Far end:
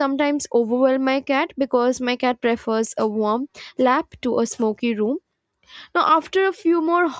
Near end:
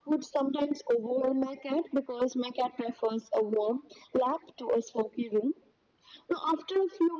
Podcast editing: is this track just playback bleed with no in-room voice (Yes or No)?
Yes